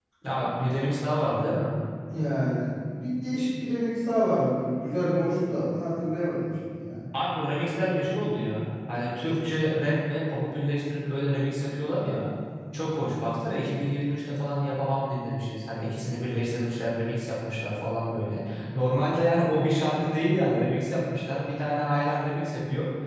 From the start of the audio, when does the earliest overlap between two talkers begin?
none

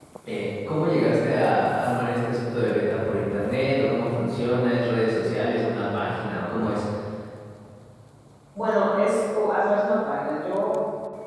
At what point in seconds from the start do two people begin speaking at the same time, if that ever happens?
none

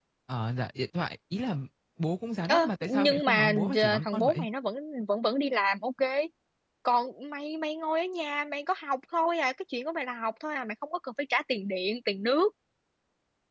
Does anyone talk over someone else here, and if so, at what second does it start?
2.5 s

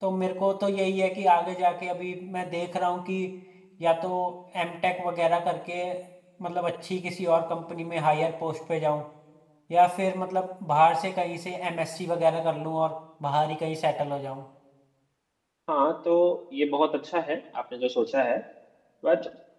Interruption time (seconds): none

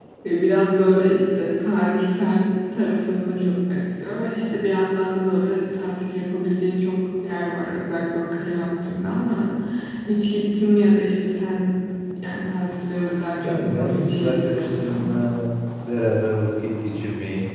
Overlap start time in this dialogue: 13.4 s

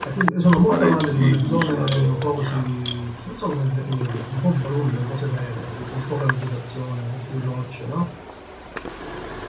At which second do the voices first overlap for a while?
0.7 s

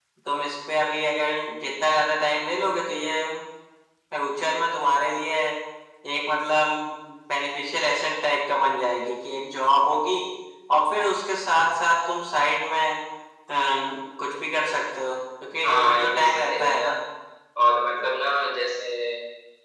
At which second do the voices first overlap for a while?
15.6 s

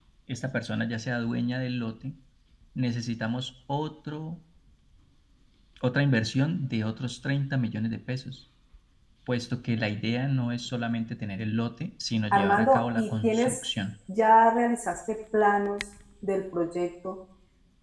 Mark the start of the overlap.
12.3 s

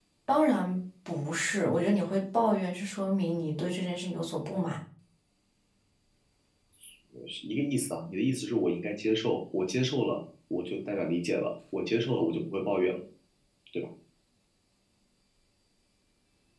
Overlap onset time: none

